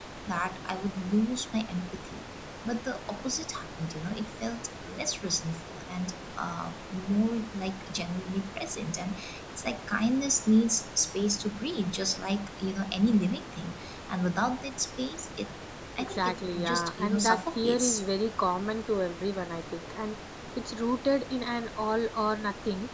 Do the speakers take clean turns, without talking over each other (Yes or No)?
No